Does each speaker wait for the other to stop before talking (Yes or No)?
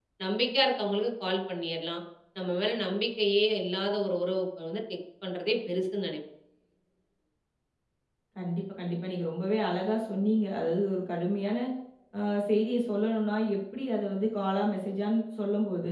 Yes